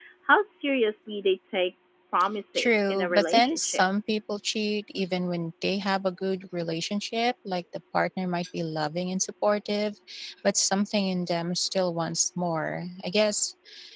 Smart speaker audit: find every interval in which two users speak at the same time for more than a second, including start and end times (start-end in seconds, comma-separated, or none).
2.5-3.8